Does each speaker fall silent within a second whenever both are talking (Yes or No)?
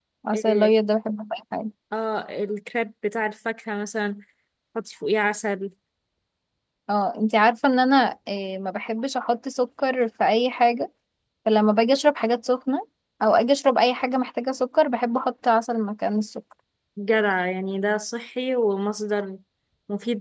Yes